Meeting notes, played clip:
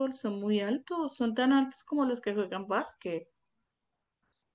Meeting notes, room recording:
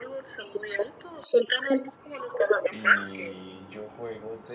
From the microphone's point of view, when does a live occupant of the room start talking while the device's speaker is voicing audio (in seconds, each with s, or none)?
2.7 s